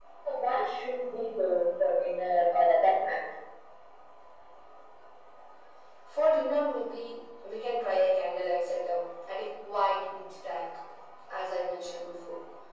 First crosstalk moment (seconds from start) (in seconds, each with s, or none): none